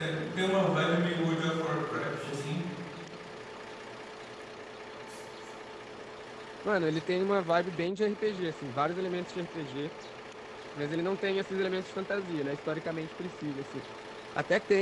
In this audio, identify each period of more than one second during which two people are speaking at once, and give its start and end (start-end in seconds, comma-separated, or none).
none